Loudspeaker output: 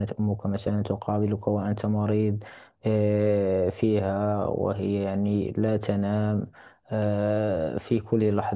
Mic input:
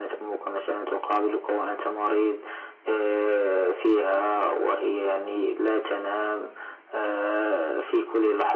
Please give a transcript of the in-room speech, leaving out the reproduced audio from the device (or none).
none